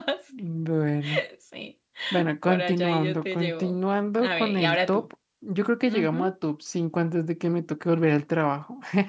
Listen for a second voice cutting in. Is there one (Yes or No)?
Yes